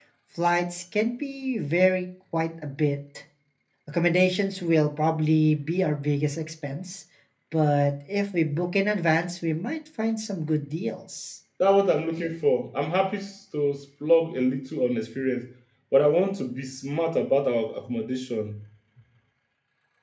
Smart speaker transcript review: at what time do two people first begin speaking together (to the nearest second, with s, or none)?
none